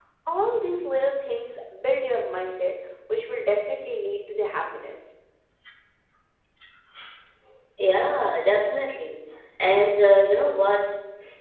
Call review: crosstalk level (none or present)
none